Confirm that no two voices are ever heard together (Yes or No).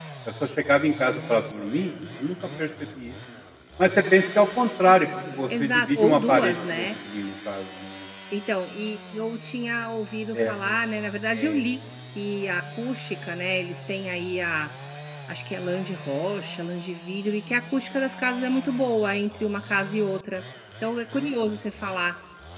No